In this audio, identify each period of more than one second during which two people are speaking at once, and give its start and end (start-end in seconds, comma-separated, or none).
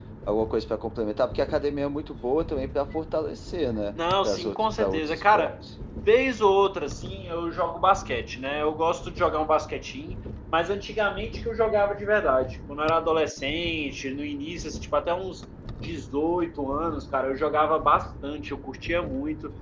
4.2-5.6